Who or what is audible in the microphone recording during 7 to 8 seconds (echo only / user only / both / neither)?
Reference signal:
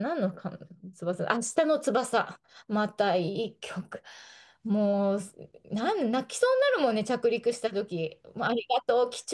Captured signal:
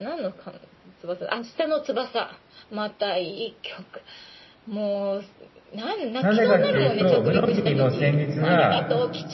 both